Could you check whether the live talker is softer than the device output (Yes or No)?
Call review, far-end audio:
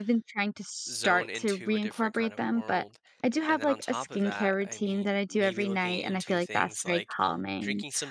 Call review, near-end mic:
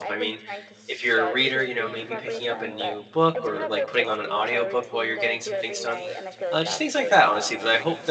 No